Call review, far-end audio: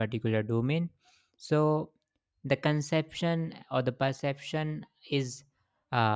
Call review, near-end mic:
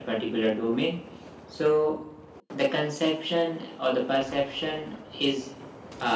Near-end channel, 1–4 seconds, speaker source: echo only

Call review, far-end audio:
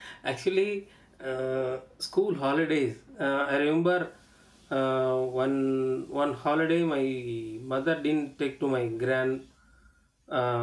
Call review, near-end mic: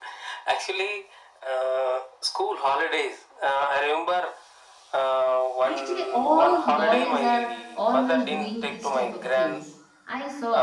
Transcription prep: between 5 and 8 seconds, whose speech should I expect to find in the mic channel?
both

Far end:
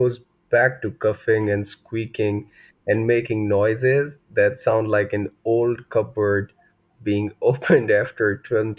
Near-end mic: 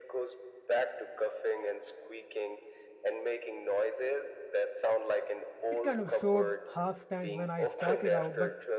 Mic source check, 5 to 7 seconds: both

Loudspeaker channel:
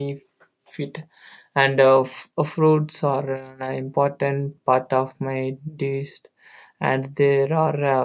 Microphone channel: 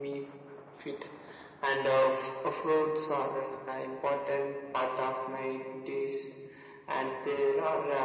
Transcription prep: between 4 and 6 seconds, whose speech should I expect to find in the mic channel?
echo only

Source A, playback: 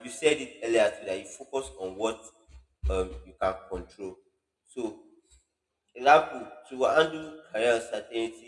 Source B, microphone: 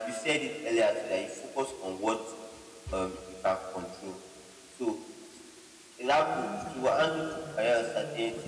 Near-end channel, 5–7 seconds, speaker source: both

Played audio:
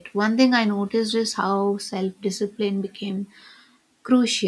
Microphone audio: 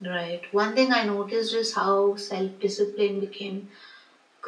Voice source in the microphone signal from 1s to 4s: echo only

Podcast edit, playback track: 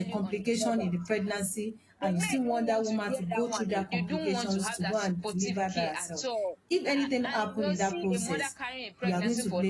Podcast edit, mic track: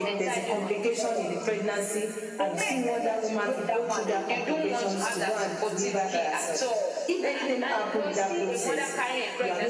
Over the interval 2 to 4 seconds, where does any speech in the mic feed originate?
echo only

